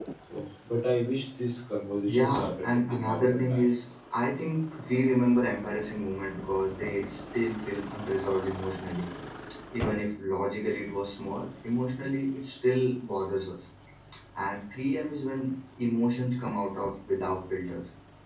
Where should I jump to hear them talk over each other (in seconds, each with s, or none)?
2.1 s